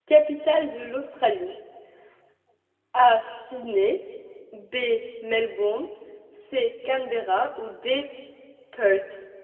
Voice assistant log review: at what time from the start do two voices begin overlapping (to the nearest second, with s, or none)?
none